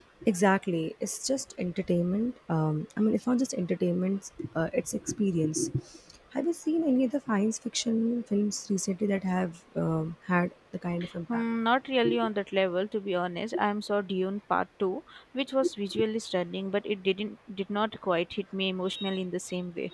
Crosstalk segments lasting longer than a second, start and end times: none

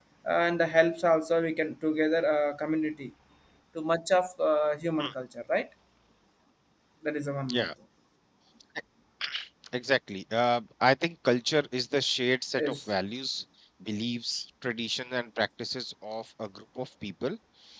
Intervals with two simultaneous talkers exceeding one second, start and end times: none

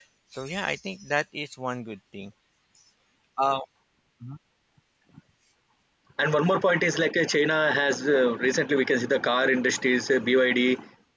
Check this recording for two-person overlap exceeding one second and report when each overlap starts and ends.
none

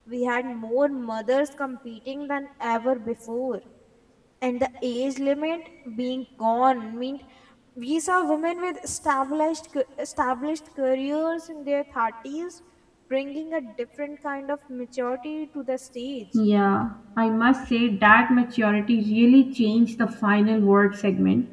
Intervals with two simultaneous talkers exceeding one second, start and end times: none

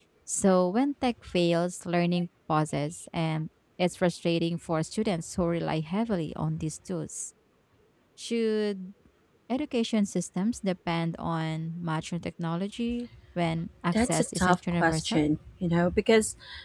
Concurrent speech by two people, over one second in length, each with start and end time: 13.9-15.2

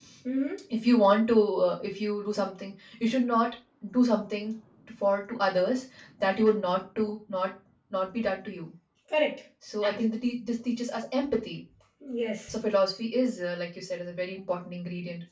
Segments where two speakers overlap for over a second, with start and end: none

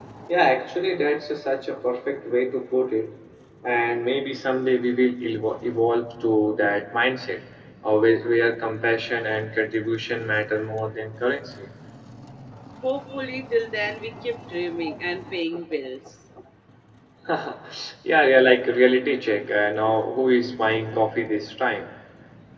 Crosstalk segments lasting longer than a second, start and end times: none

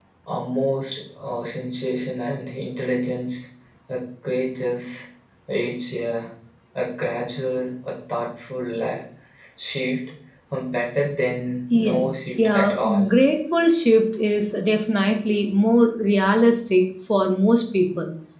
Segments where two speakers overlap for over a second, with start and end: 11.7-13.1

